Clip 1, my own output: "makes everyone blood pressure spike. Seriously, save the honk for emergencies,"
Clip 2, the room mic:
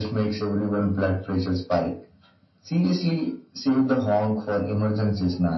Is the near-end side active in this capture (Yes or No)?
No